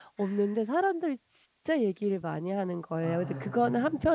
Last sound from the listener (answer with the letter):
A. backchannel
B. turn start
A